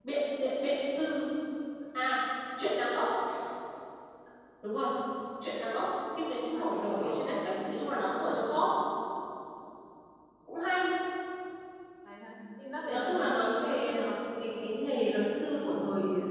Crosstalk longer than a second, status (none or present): present